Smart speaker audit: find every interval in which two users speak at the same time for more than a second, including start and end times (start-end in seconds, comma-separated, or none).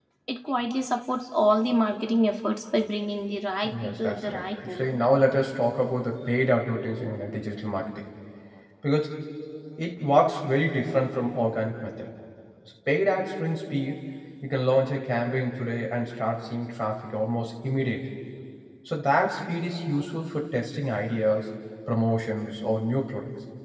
3.7-5.0